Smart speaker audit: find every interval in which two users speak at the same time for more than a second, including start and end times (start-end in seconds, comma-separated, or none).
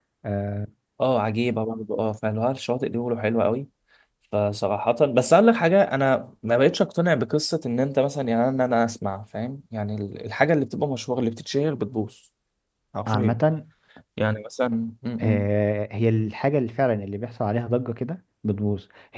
none